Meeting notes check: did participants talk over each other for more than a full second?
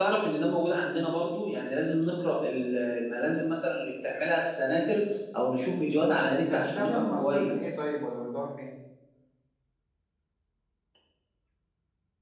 Yes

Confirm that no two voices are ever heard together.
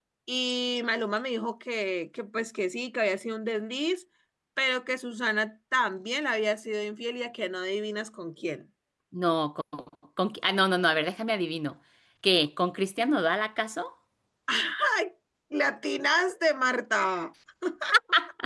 Yes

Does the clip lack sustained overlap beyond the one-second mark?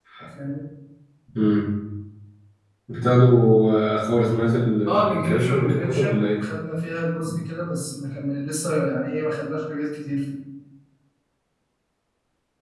No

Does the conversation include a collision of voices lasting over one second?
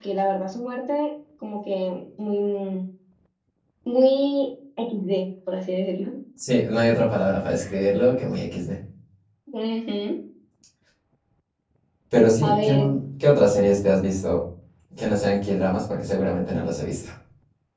No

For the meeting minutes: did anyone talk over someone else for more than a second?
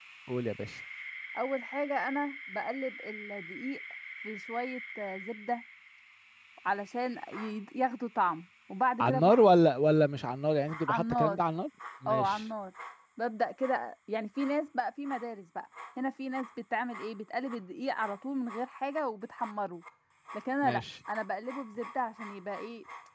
No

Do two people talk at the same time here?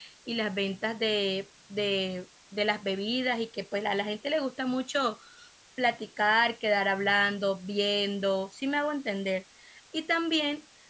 No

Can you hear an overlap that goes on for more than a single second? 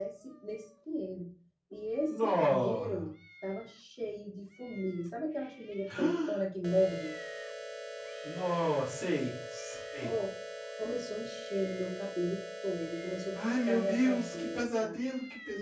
Yes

